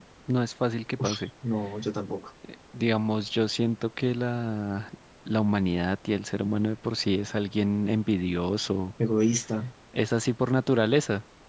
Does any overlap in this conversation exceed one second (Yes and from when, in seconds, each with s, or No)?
No